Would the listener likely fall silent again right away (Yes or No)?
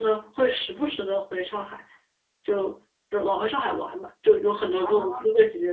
Yes